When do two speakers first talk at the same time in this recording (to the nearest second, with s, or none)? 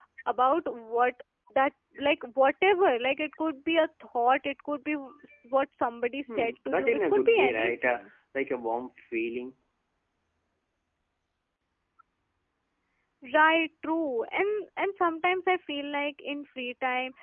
6 s